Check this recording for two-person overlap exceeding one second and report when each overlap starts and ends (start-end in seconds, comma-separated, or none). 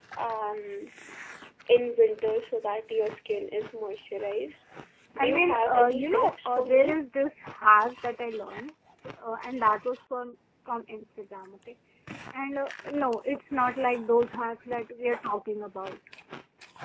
5.2-6.8